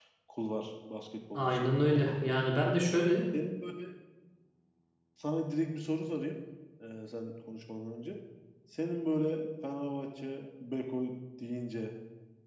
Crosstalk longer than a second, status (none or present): none